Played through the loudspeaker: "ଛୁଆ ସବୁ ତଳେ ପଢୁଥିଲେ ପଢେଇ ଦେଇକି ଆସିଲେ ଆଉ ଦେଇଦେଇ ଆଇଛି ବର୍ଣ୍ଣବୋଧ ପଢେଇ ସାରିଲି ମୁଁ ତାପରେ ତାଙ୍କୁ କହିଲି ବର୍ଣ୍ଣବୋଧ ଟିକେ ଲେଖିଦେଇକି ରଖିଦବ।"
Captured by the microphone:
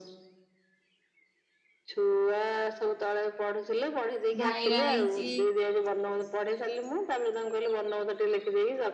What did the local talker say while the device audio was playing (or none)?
ଭାଇର ଆଇଛି